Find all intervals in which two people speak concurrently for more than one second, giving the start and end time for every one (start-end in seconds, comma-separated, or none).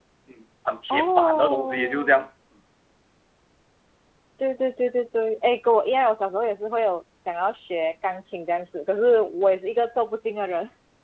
0.9-2.2